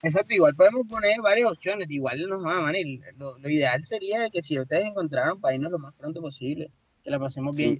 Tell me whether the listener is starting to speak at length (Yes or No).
Yes